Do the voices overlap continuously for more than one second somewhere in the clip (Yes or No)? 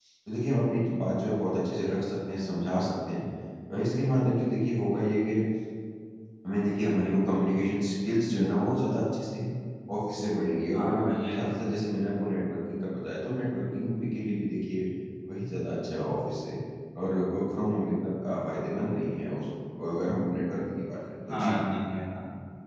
No